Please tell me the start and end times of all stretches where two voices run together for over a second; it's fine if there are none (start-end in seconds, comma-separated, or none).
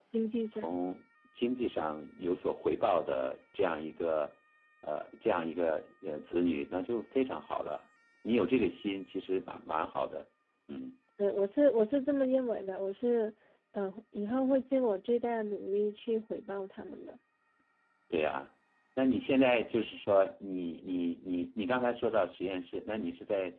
none